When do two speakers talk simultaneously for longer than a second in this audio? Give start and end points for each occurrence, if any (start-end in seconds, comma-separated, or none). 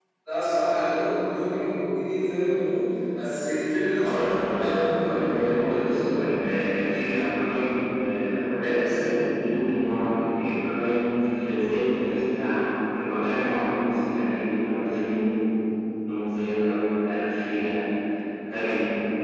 4.0-5.5